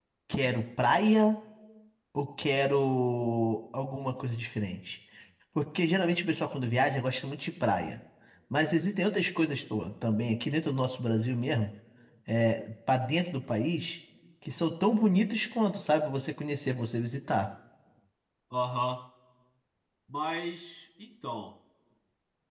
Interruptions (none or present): none